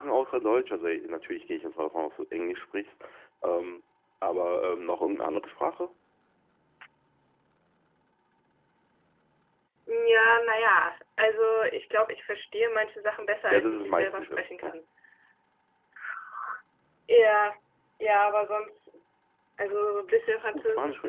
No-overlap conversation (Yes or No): No